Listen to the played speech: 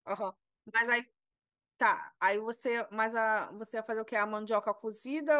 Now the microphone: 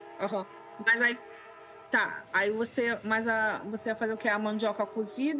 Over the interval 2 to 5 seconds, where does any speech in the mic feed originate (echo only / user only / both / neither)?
echo only